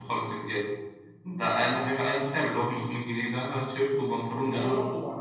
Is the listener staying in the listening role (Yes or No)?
No